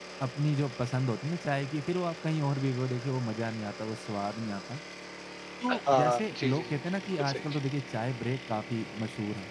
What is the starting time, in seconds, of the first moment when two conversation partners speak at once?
5.9 s

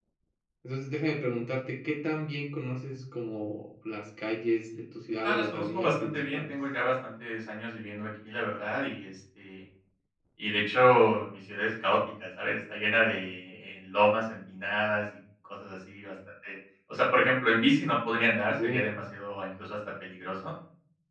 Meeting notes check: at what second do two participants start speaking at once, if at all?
5.2 s

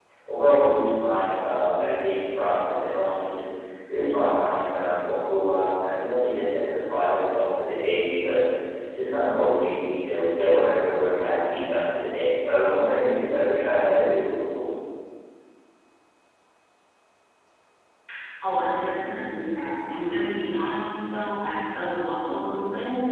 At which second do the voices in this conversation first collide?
none

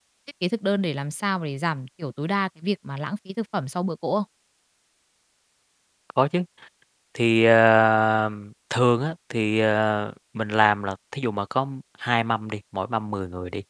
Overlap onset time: none

